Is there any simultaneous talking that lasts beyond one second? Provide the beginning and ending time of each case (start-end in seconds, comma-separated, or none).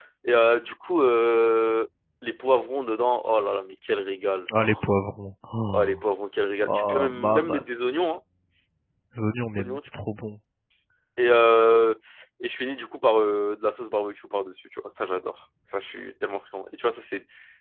6.6-8.0